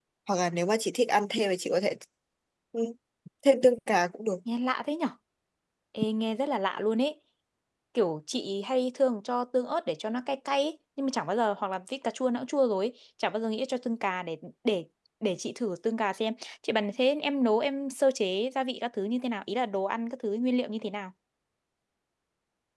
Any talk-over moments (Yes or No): No